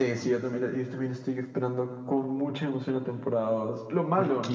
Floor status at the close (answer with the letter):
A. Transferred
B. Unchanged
B